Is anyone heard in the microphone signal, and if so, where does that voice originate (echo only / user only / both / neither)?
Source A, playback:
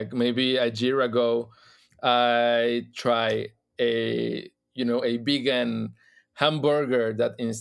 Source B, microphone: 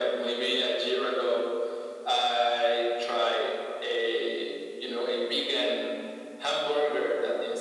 echo only